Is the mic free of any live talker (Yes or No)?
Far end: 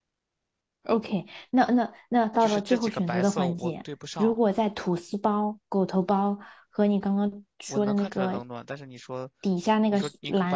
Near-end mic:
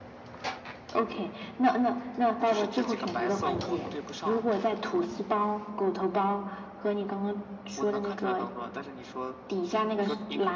Yes